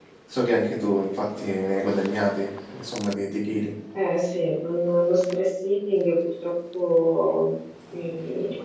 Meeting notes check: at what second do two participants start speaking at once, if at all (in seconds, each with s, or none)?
none